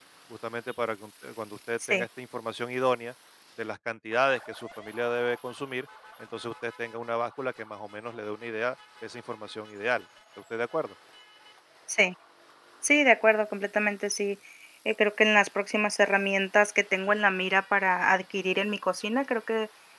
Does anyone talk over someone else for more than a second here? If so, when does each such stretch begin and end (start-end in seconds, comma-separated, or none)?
none